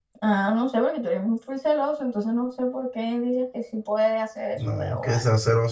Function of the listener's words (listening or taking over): taking over